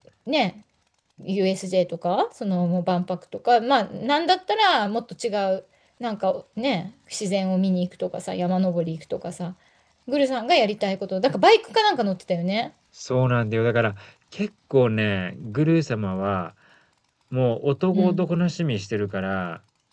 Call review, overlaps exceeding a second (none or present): none